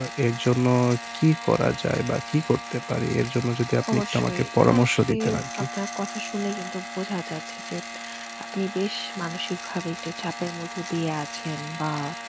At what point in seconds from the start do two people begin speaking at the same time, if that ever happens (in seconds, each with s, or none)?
3.8 s